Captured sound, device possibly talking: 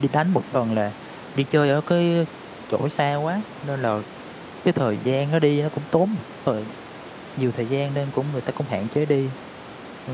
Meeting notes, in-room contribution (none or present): present